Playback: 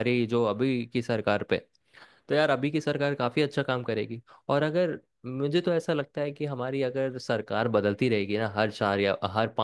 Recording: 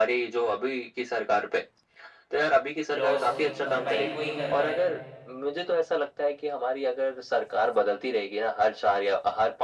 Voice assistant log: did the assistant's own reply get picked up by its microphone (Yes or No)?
Yes